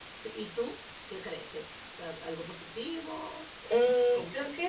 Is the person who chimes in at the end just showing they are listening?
No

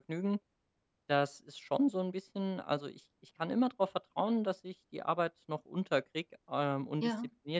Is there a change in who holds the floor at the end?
No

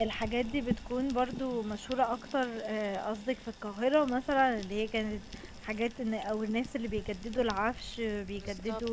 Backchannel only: Yes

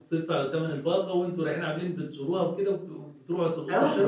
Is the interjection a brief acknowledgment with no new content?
No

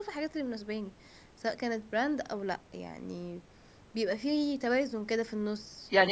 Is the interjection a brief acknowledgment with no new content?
No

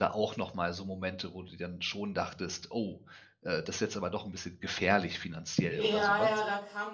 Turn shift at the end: Yes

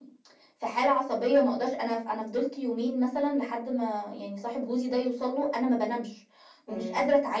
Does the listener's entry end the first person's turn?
No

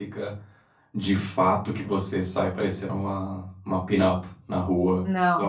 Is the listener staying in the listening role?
Yes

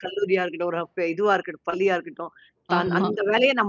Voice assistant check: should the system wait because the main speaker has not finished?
Yes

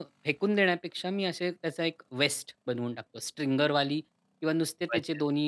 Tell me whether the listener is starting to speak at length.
No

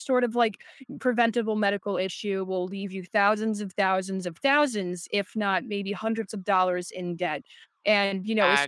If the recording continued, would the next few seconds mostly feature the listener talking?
No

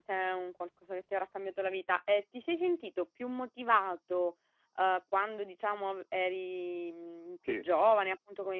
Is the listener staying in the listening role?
Yes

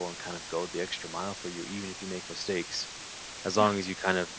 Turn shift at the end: No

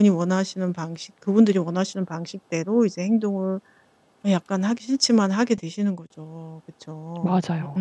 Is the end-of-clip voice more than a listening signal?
No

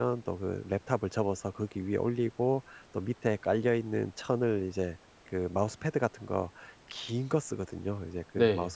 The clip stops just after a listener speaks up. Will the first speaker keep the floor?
Yes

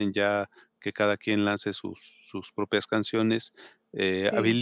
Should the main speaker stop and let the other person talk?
No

